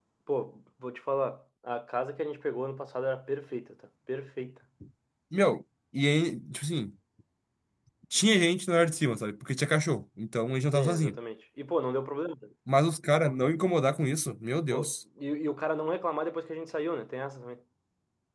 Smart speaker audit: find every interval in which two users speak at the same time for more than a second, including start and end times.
none

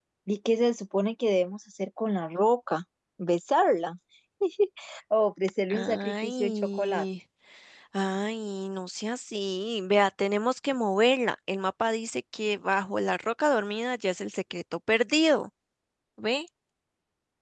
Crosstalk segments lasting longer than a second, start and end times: 5.7-7.0

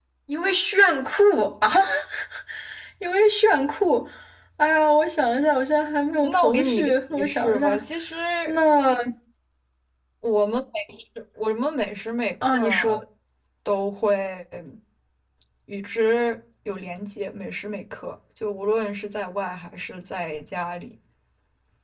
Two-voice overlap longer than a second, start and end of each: 6.2-7.8

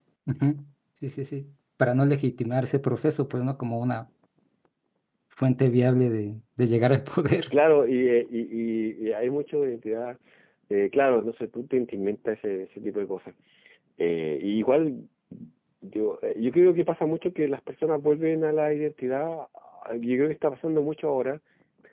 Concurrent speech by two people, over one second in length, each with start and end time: none

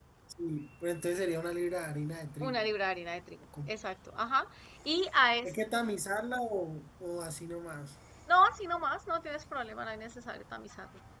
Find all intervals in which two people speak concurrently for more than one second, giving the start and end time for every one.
none

